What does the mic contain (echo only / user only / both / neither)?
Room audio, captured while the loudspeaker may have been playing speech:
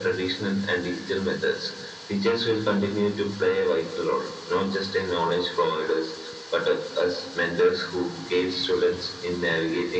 echo only